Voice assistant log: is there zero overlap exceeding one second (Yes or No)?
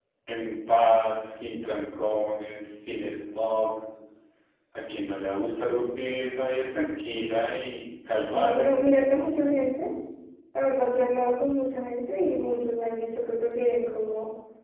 Yes